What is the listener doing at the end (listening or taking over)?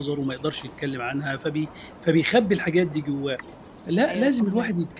listening